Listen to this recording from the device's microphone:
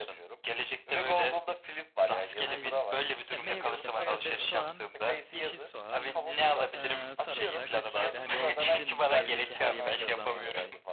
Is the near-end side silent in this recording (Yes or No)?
No